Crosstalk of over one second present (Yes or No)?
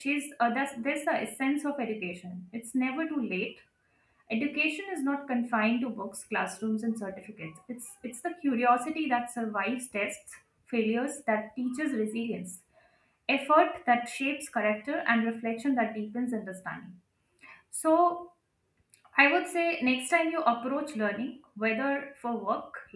No